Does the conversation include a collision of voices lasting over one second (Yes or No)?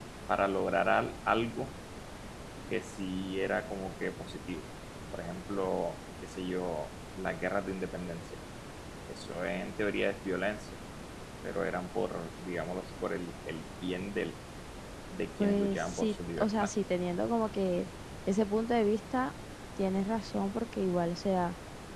Yes